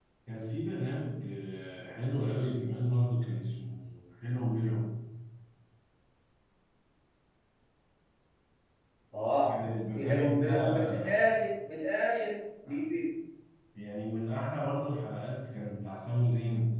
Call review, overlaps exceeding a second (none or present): present